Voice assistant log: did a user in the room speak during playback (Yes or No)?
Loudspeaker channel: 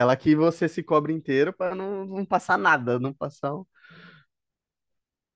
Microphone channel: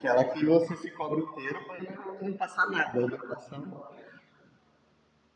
No